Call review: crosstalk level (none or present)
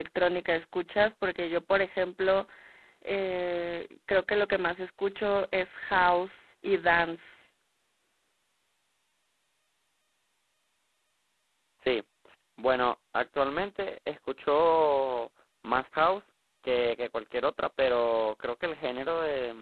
none